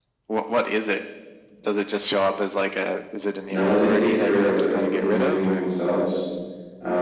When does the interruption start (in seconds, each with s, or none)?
3.5 s